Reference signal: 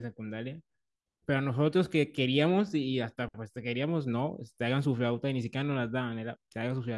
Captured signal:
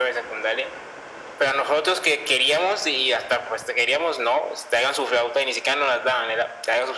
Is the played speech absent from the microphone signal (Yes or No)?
No